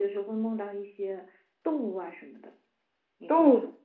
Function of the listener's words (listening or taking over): taking over